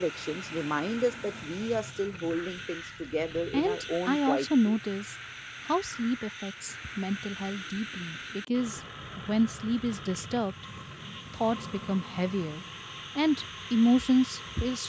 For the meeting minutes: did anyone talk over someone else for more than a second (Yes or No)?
Yes